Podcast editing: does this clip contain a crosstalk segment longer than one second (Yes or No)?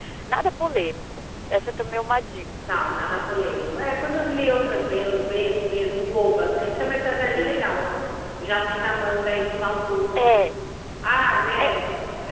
No